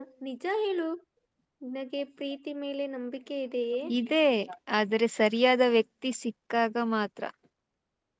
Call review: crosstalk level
none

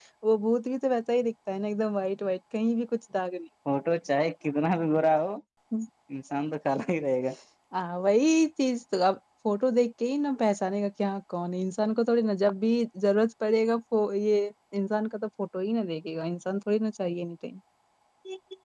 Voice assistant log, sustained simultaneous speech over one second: none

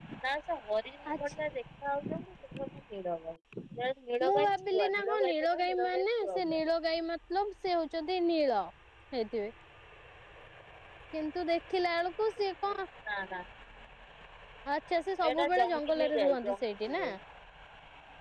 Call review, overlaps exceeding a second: present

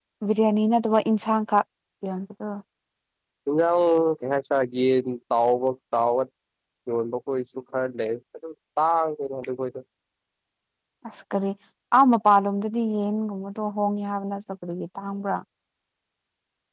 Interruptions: none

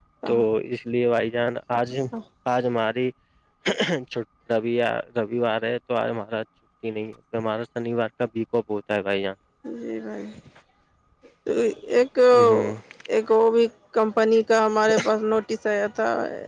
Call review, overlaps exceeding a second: none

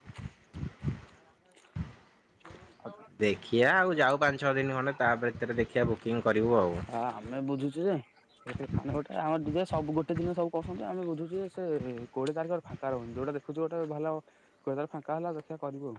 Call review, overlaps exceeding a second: none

